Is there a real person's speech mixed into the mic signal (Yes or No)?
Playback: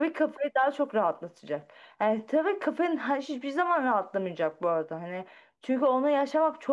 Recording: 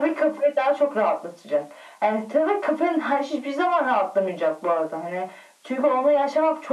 No